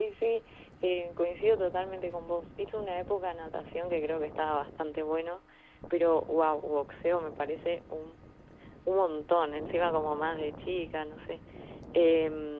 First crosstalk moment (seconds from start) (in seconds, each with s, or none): none